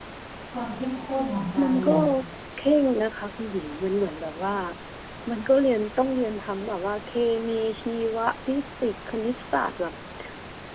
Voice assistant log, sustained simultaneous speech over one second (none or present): none